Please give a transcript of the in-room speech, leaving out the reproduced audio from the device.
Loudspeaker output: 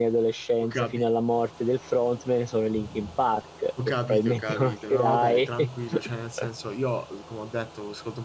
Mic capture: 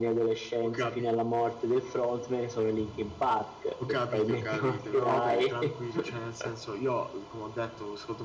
none

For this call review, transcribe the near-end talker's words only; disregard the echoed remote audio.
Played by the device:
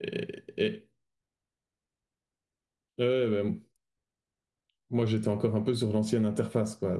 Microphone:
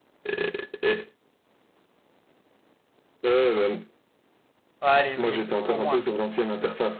Ouais, allez, oui, au moins,

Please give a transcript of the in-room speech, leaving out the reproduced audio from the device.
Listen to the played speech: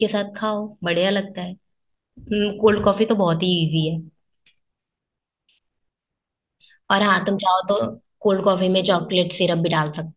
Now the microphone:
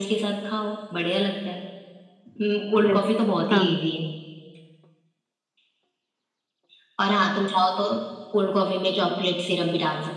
यस हाँ

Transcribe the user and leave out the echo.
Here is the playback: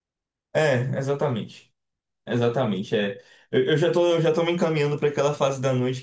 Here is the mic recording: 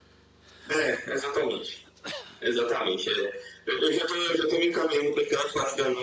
none

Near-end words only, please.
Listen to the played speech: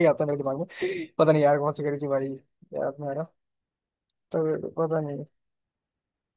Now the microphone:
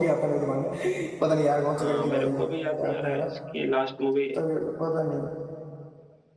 हाँ मेरे को भी याद नहीं आ रहा है इसकी लास्ट मूवी

